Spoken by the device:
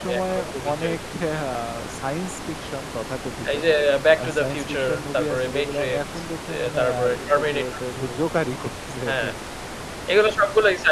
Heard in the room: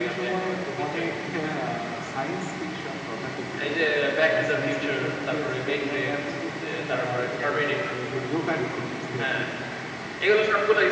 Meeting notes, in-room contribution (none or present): none